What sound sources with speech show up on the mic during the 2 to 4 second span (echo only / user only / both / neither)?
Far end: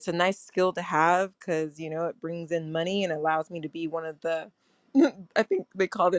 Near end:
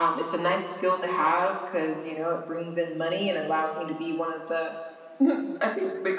echo only